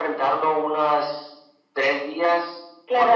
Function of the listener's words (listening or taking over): taking over